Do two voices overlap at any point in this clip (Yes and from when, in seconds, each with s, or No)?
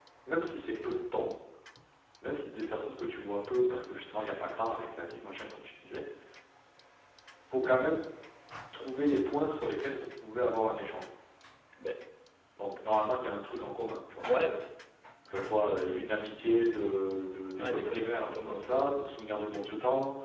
Yes, from 17.5 s